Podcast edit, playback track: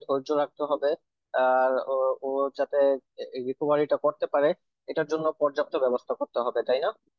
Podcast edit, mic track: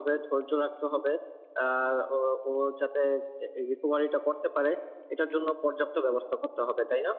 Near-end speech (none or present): none